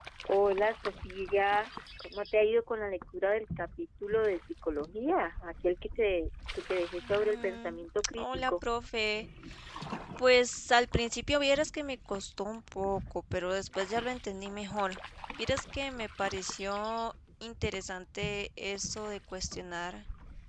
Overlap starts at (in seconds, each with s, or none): 7.0 s